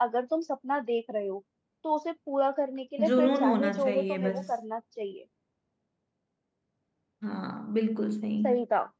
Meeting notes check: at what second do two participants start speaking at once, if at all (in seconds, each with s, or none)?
3.0 s